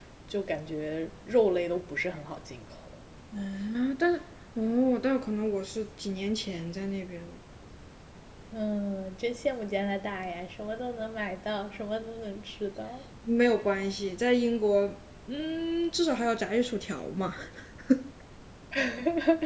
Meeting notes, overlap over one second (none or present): none